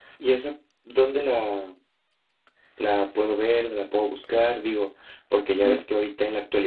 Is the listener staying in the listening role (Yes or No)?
Yes